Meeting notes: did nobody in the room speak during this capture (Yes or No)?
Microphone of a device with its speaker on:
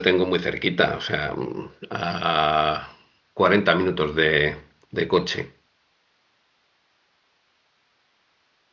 No